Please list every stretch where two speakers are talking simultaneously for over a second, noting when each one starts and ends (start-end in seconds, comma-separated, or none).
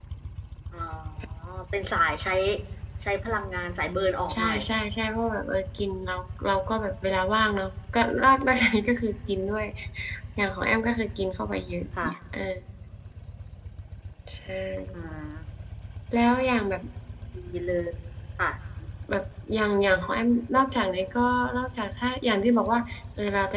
none